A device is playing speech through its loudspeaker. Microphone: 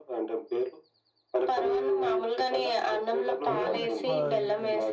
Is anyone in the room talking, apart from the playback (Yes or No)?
Yes